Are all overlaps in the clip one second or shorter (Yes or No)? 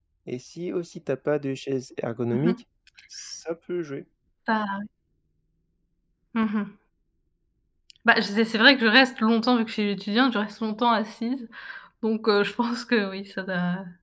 Yes